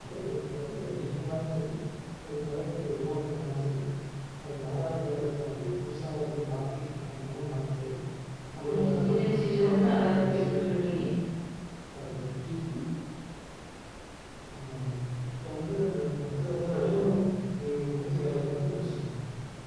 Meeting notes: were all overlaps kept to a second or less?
No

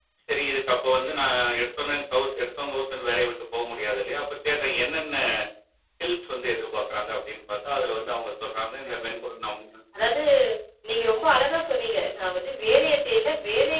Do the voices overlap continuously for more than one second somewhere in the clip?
No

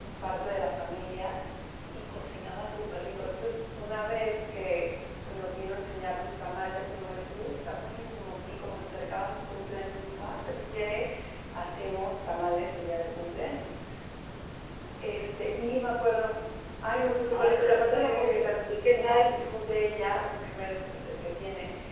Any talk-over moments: Yes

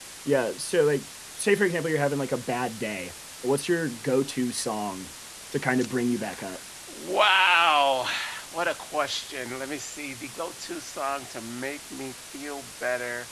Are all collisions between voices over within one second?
Yes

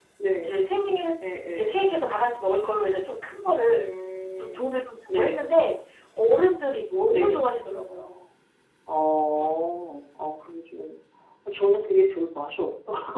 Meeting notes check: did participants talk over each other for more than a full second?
No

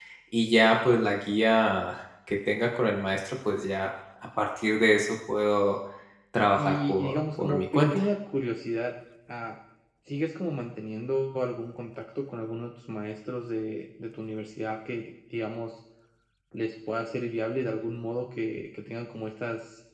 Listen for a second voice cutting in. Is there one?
Yes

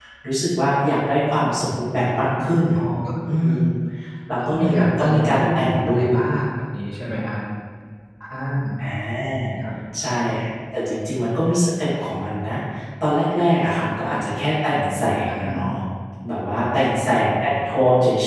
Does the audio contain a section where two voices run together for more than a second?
Yes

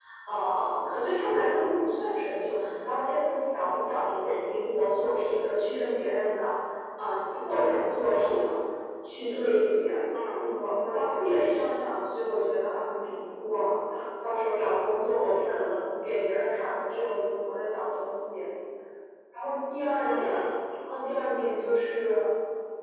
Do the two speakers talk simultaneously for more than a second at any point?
No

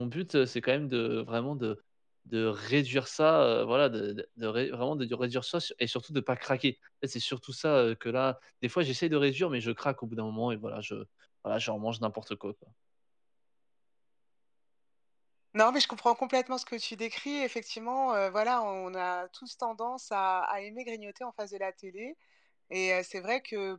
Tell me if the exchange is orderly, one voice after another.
Yes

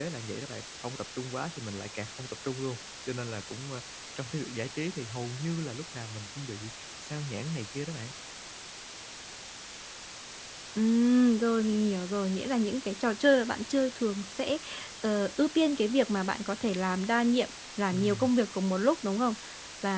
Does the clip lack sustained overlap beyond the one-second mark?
Yes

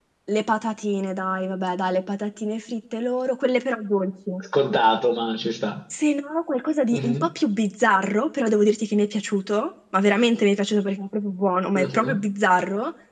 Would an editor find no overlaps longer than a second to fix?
Yes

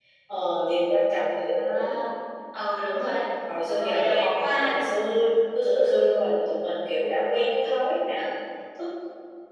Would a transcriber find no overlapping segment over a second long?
No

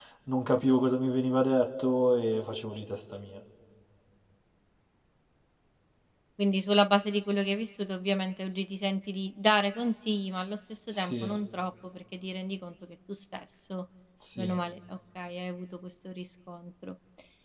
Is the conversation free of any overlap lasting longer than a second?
Yes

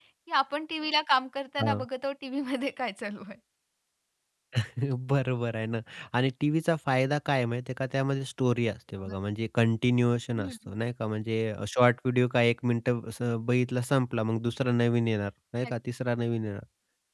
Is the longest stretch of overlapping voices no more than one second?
Yes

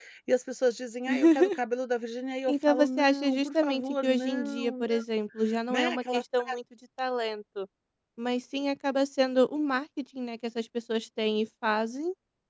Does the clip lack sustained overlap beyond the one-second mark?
No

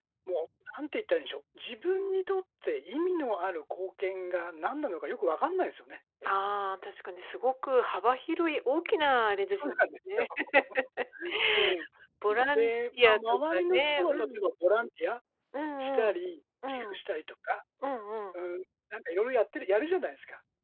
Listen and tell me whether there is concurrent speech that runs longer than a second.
Yes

